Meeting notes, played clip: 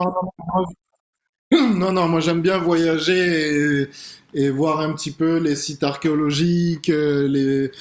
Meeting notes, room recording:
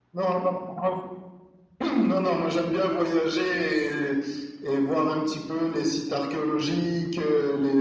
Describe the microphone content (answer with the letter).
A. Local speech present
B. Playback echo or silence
B